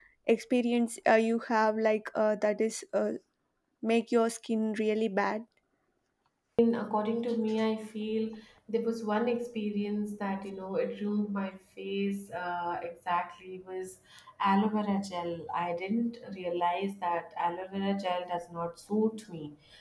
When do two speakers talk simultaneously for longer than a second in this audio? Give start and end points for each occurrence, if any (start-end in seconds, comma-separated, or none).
none